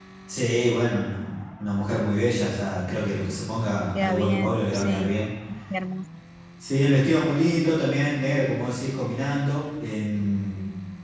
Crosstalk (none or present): present